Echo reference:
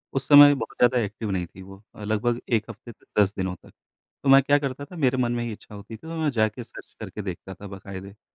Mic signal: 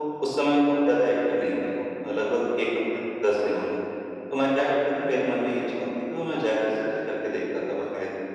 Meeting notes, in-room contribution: none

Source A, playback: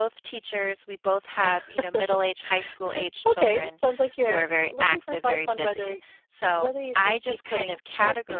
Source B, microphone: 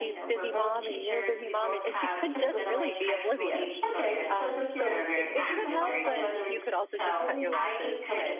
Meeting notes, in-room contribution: present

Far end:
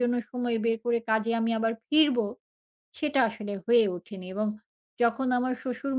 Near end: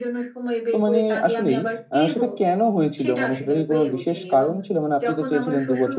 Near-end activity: present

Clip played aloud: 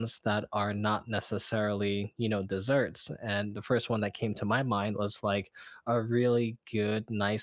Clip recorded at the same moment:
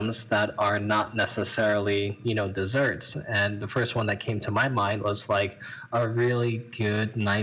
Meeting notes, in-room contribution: none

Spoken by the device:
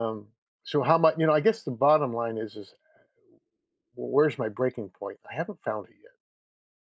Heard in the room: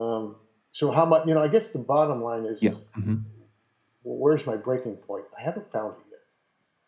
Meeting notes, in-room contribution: present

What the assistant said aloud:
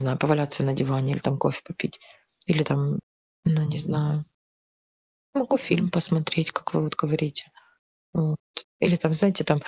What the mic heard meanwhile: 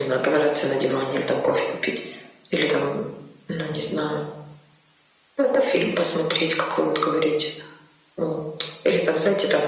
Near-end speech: none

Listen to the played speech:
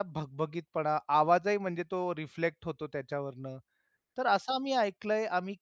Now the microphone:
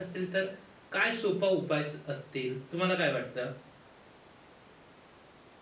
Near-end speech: present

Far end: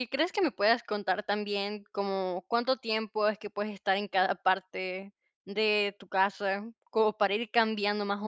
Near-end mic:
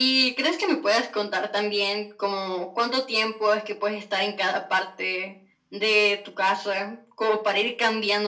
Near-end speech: none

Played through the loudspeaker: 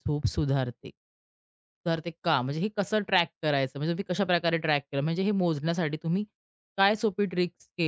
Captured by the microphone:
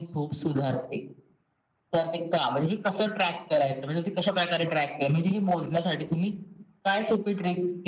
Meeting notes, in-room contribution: none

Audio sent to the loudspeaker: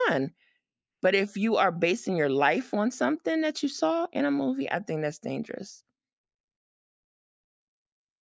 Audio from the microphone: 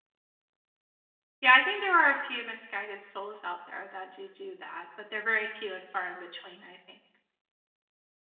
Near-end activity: present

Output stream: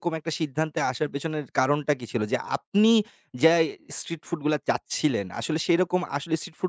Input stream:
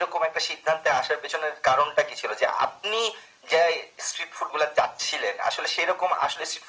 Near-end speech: none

